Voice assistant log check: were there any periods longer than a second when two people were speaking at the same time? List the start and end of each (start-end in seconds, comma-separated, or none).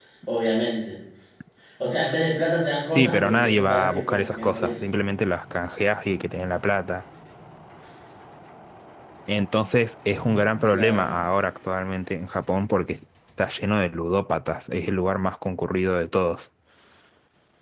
2.9-4.8